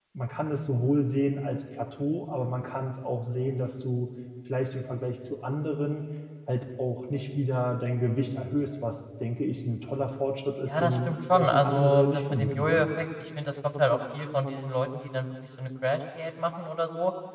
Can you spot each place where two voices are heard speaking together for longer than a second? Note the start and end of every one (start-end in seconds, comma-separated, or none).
10.7-12.9